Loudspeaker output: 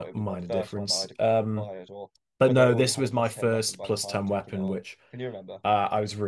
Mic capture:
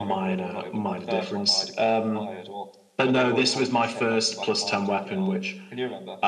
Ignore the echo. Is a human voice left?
No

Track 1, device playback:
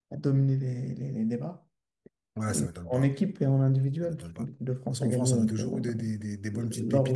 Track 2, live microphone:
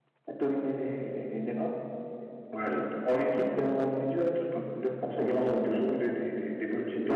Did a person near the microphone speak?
No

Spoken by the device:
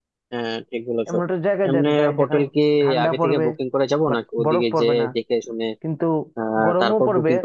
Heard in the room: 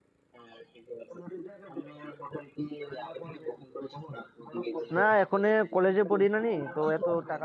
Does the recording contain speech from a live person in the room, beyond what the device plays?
Yes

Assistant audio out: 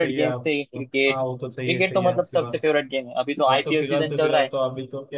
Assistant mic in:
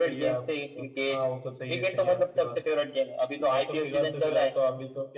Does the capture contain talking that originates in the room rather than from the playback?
No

